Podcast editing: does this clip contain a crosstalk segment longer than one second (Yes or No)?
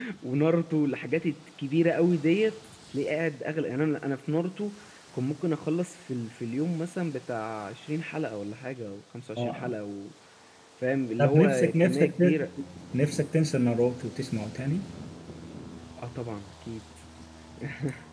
Yes